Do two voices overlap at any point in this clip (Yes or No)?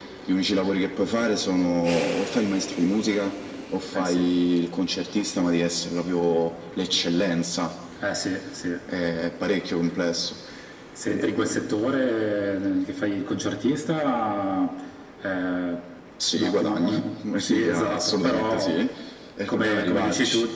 Yes